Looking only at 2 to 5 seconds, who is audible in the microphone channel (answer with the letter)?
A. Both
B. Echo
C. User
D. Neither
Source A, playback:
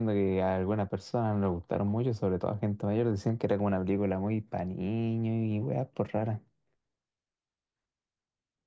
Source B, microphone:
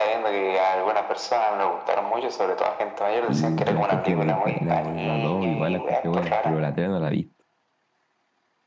A